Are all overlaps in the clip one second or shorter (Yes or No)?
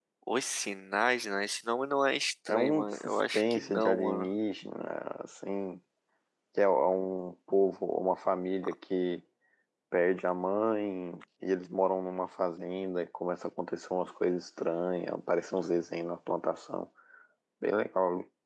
No